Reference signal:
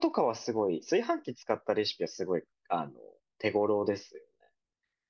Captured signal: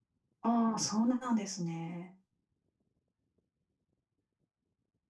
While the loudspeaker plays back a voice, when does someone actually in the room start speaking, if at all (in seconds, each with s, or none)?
0.4 s